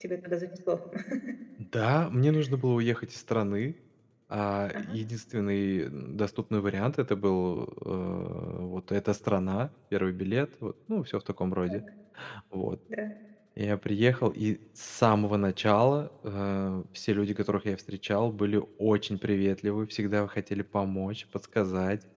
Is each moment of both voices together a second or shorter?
Yes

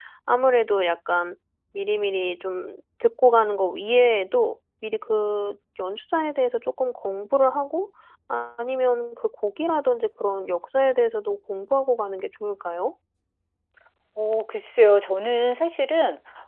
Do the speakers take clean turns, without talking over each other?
Yes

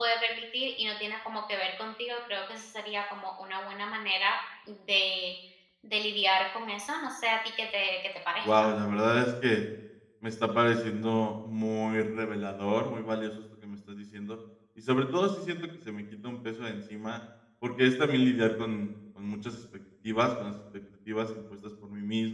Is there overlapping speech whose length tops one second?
No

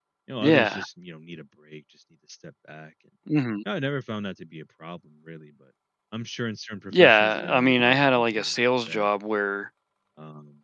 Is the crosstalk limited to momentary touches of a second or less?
No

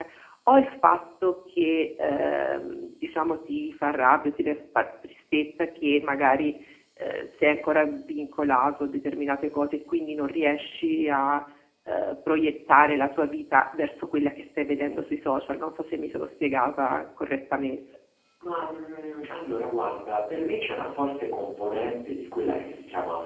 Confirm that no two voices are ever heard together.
Yes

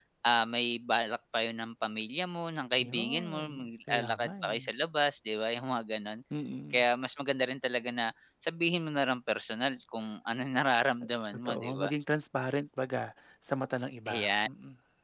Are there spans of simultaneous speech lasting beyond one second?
Yes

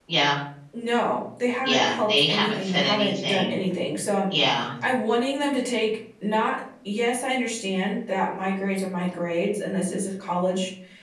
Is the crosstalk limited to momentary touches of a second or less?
No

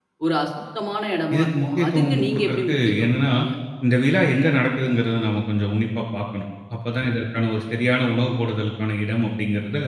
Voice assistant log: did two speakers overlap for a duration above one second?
Yes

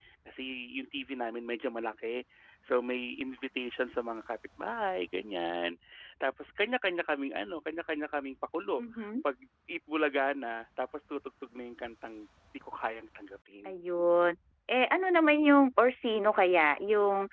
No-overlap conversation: Yes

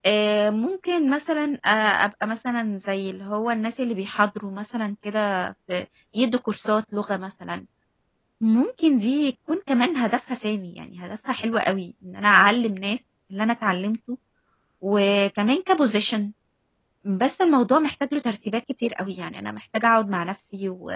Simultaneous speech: No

